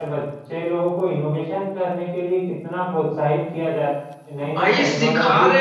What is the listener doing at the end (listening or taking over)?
taking over